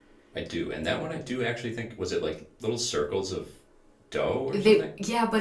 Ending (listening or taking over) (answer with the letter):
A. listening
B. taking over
B